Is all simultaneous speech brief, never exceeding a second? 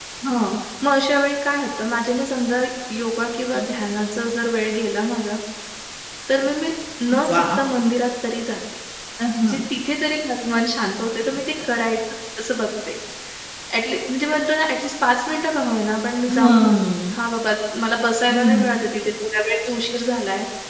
Yes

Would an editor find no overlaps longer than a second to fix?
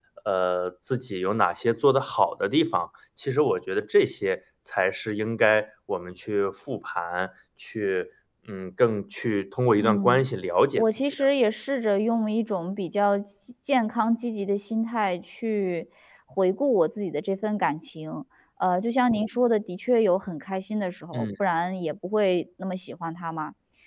Yes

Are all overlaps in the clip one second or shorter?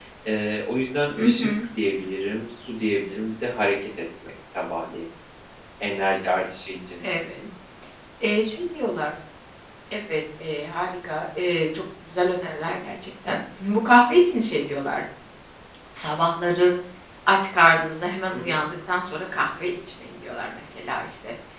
Yes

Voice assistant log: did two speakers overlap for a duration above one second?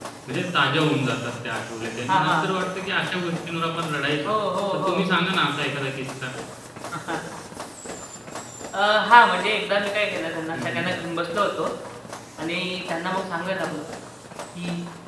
No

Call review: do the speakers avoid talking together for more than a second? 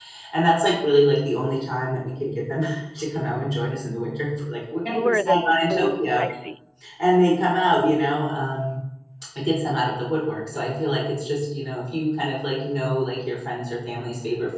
No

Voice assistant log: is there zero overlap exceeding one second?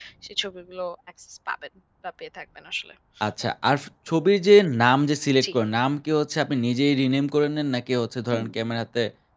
Yes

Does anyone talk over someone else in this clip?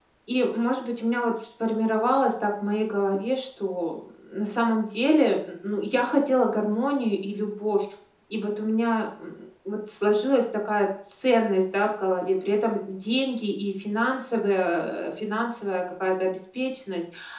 No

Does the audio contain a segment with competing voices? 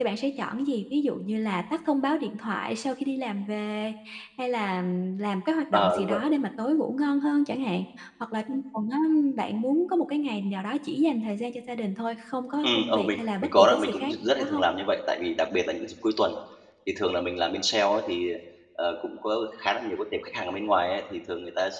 Yes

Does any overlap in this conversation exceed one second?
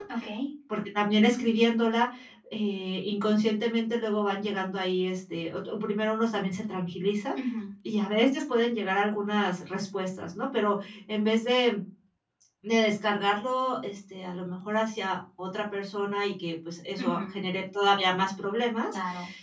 No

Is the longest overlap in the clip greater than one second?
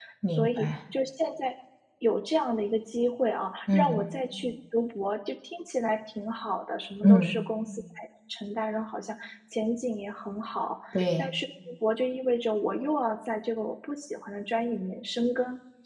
No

